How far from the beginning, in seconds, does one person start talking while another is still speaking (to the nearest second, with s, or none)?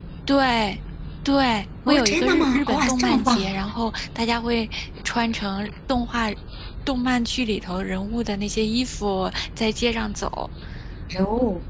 2 s